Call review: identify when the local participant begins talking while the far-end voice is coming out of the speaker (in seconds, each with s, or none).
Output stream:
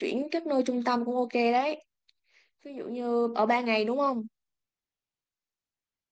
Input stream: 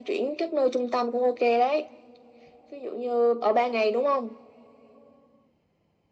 none